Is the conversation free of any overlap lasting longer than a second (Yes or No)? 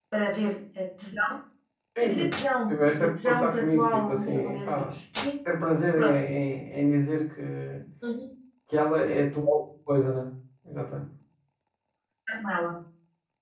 No